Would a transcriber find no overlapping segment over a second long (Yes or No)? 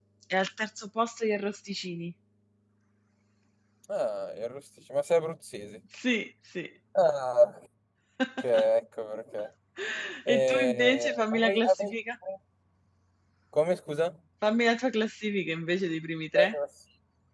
No